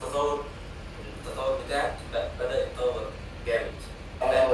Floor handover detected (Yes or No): Yes